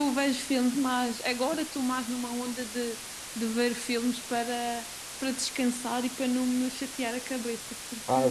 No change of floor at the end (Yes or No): No